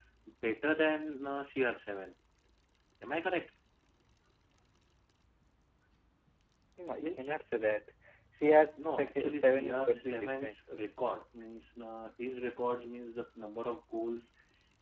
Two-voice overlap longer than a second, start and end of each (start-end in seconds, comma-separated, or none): 8.9-10.5